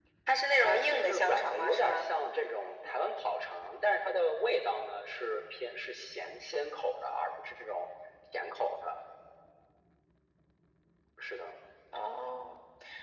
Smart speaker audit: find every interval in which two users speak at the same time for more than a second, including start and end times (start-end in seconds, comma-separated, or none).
0.6-2.1